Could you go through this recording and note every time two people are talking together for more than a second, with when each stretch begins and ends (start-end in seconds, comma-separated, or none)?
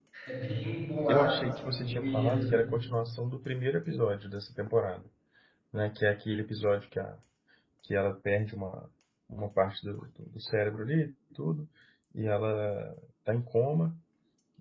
1.1-2.6